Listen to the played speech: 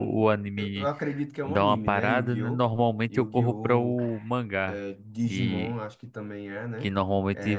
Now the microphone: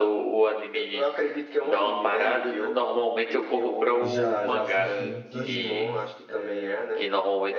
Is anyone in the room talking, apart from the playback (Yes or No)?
Yes